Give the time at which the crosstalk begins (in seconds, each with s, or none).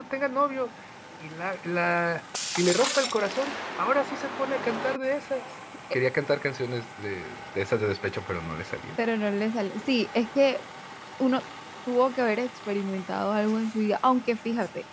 none